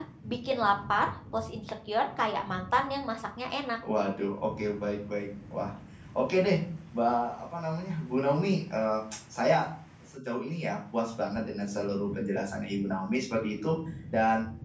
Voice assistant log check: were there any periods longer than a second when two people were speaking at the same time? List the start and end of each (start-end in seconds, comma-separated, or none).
none